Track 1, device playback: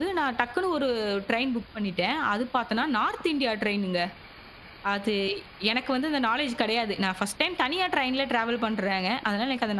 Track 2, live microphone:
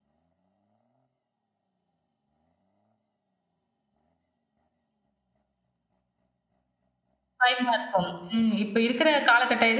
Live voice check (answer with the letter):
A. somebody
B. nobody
A